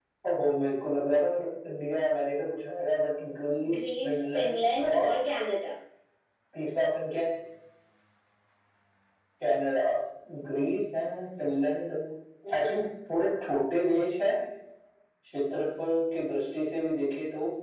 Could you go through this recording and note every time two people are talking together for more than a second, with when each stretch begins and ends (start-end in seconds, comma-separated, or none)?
3.7-5.2